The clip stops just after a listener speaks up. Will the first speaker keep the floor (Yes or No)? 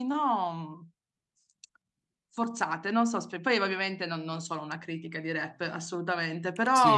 Yes